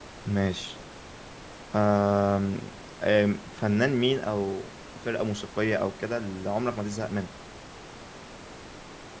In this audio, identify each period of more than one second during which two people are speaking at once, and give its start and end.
none

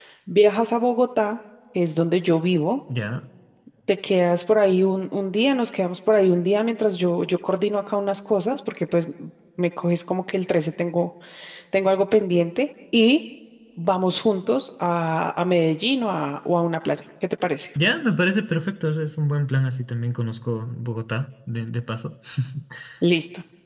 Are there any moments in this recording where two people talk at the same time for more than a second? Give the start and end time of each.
none

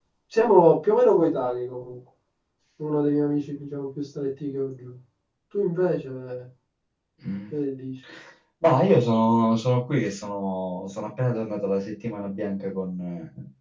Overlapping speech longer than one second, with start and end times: none

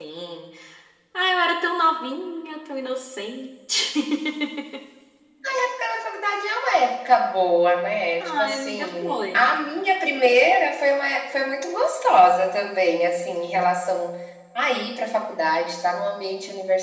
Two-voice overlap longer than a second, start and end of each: 8.2-9.4

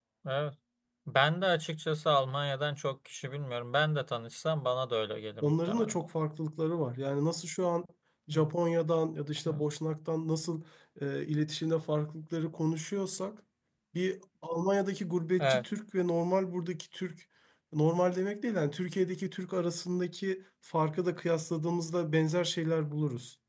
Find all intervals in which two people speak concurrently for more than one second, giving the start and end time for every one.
none

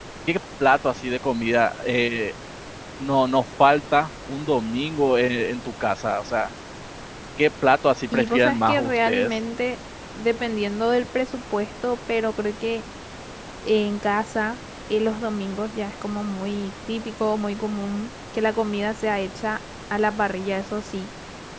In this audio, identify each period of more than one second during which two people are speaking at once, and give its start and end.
8.1-9.4

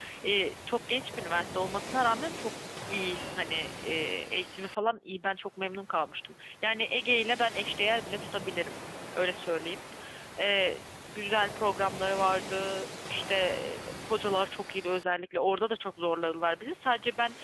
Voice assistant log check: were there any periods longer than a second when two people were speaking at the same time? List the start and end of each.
none

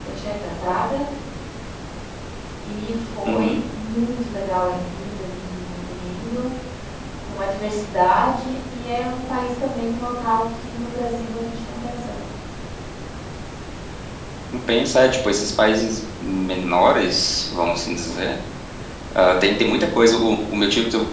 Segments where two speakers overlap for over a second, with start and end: none

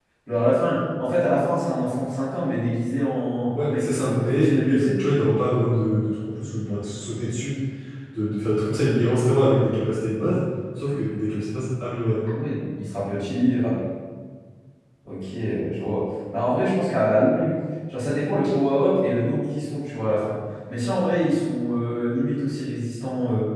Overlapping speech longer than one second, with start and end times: 3.6-5.0

